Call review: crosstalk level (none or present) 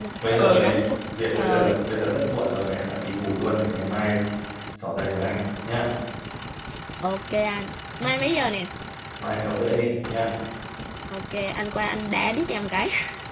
present